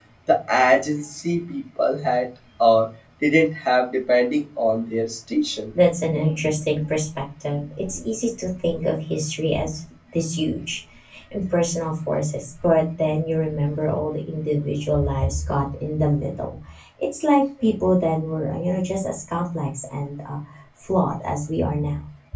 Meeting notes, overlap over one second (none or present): none